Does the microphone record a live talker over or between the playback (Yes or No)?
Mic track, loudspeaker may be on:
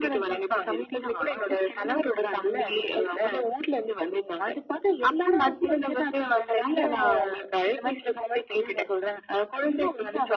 No